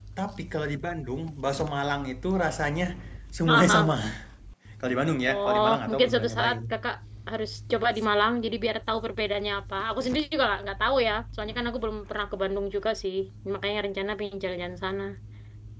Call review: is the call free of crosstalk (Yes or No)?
No